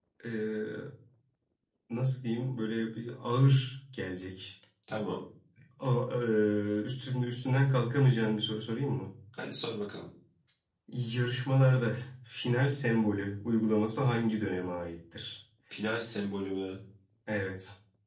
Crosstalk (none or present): none